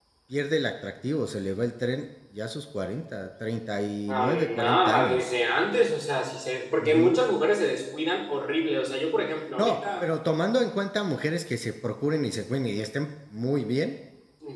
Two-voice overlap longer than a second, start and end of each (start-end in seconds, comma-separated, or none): 4.1-5.3